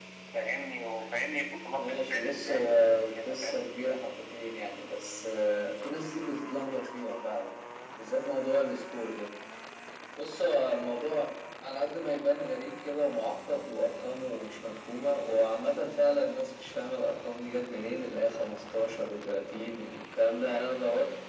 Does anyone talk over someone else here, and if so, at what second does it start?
1.8 s

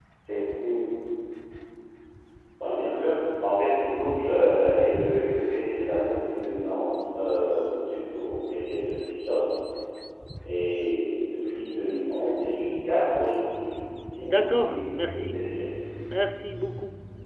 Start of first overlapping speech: 14.2 s

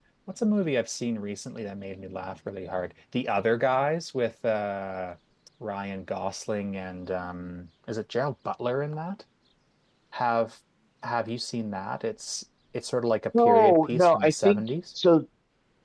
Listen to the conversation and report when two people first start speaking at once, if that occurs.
13.3 s

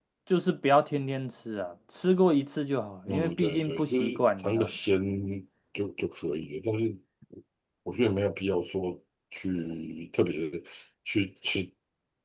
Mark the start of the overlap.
3.1 s

